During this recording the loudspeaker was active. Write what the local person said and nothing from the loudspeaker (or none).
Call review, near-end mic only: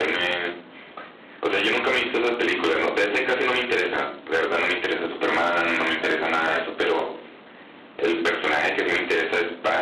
none